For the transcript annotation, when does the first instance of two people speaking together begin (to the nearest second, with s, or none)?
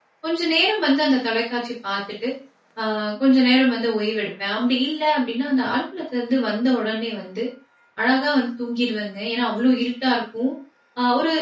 none